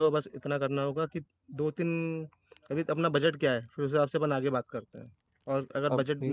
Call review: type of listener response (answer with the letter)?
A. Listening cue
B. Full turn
A